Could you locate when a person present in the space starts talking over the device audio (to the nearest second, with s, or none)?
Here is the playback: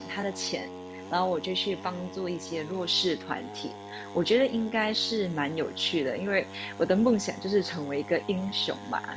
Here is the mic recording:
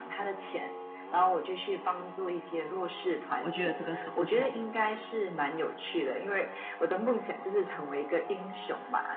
3 s